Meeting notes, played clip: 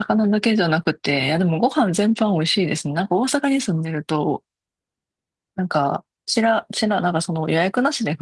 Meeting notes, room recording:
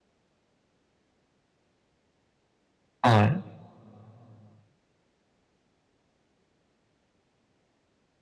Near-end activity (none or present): present